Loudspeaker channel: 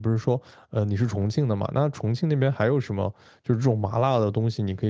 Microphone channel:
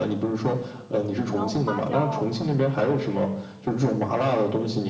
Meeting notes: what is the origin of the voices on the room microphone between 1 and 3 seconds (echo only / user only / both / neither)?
both